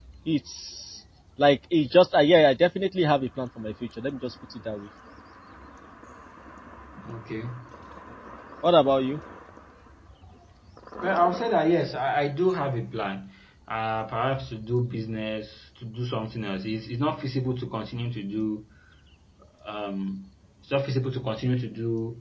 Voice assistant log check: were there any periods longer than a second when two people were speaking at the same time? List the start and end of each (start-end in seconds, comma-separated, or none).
none